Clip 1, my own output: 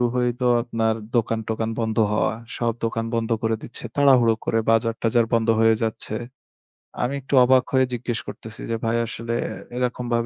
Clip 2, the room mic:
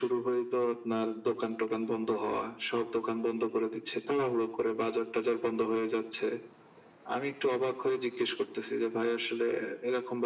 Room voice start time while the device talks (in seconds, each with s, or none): none